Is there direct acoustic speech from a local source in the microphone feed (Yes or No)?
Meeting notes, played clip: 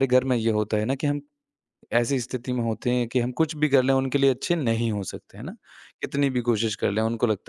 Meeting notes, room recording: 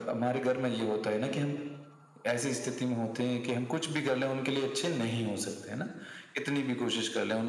No